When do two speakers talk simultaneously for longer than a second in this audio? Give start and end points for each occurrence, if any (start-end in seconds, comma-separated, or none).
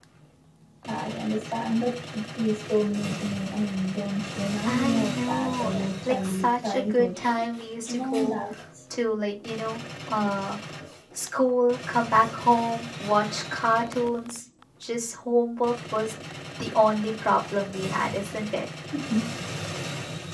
4.6-7.1